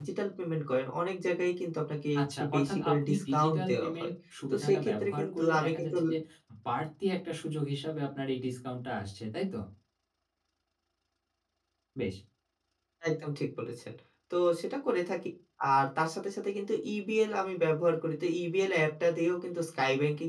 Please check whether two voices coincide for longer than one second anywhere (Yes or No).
Yes